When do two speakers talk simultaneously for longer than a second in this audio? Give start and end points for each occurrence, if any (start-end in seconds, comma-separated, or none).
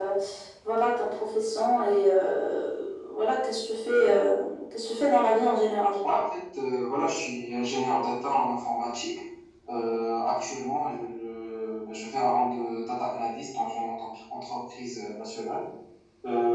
none